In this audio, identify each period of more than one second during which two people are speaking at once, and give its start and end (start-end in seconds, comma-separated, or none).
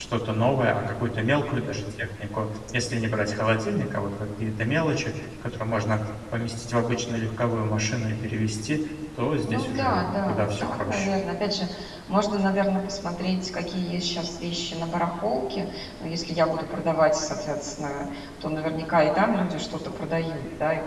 9.4-11.1